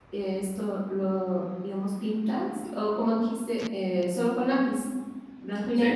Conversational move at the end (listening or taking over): taking over